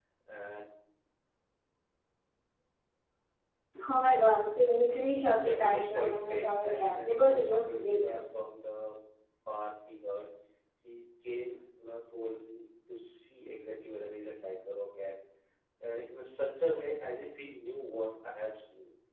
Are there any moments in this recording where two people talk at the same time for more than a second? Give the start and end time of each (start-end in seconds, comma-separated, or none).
5.4-8.1